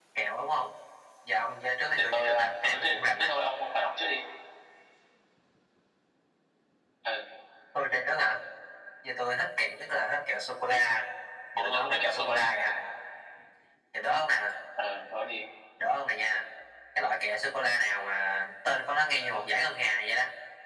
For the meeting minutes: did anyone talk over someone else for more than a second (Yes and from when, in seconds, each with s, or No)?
Yes, from 1.9 s